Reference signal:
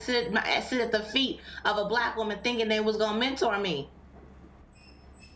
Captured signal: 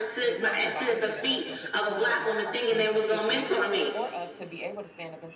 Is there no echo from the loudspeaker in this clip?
No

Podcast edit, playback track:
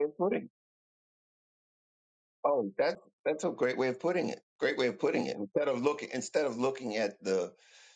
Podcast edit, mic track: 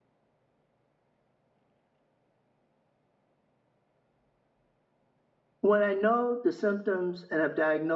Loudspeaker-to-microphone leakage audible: No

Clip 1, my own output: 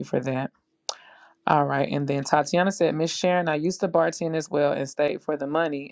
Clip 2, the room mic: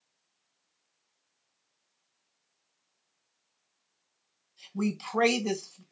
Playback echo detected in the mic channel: No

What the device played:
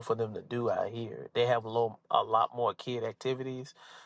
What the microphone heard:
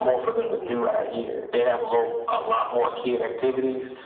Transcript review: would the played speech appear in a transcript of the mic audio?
Yes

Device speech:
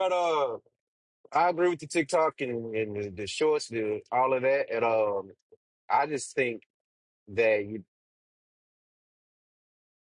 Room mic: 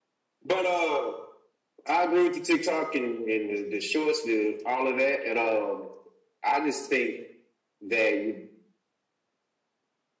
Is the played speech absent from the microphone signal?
No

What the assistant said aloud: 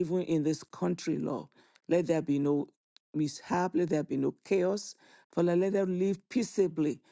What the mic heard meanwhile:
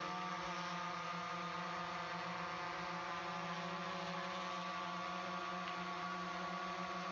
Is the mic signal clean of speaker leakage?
Yes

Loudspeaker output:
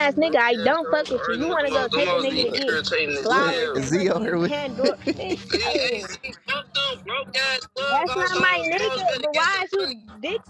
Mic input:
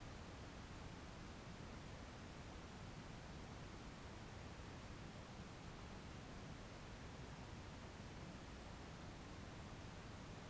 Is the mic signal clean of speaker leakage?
Yes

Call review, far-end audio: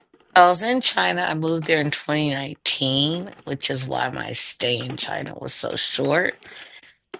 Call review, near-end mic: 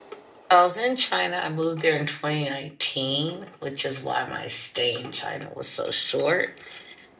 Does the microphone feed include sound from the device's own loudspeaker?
Yes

